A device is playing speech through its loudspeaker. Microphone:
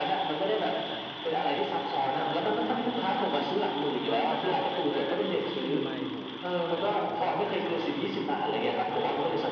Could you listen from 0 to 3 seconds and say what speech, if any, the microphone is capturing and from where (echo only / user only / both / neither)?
both